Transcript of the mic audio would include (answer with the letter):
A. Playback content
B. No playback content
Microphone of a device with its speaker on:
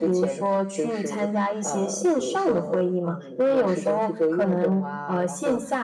A